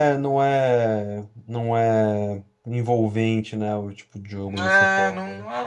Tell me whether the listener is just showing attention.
No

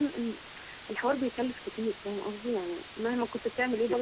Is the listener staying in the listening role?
No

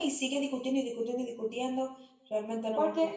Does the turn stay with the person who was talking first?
No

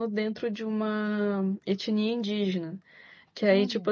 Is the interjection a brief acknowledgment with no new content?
Yes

